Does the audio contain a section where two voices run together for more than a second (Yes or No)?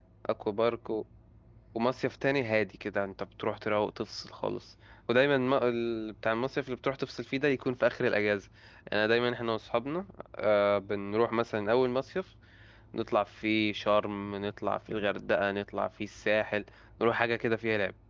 No